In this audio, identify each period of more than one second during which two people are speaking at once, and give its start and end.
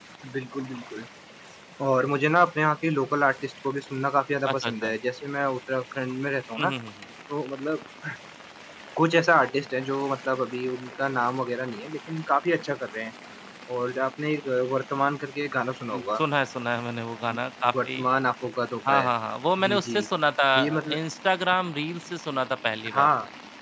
none

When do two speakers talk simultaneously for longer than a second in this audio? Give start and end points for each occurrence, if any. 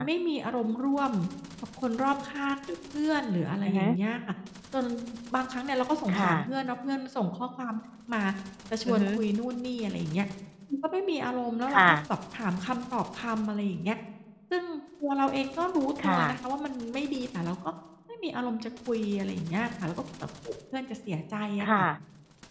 none

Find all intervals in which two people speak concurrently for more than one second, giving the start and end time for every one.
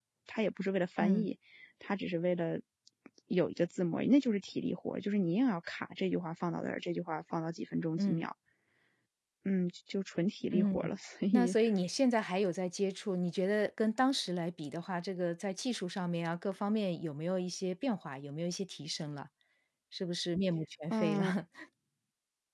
none

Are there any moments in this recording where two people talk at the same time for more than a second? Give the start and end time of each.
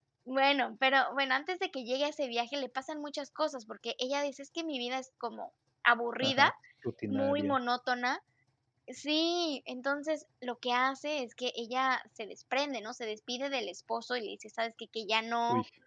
none

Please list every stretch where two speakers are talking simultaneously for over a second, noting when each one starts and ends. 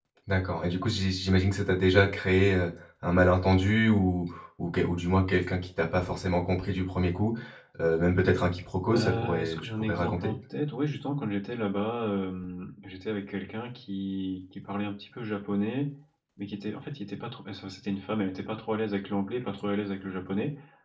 8.9-10.3

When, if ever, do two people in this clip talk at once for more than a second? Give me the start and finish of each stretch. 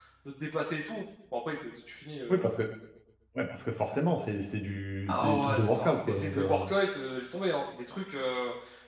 5.1-6.7

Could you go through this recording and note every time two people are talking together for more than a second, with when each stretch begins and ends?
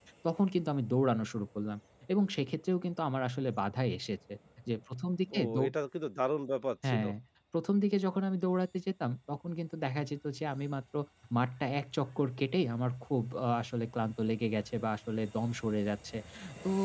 none

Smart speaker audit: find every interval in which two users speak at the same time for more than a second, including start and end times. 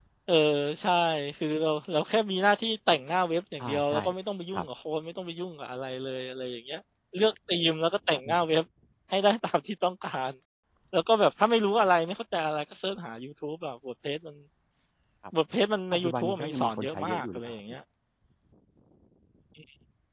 15.9-17.5

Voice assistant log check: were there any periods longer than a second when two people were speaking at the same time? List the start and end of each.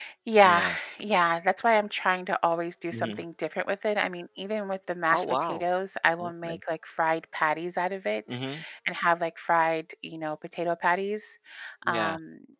none

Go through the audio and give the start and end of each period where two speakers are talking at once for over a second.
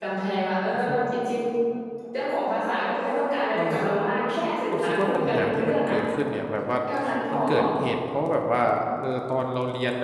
4.7-6.0

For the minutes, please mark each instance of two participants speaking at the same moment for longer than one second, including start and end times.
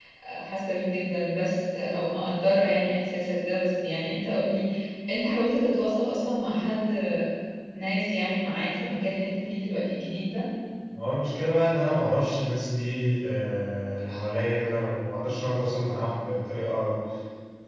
none

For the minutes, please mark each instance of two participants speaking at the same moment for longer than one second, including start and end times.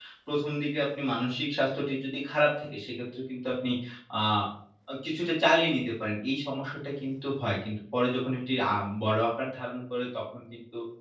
none

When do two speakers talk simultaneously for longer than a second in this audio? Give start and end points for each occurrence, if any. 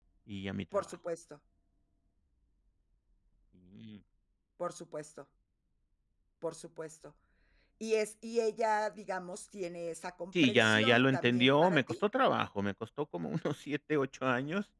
10.4-11.9

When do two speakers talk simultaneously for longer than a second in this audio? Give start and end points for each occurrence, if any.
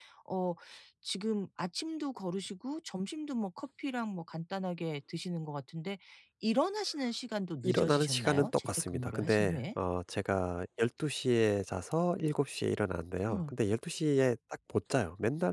7.6-9.6

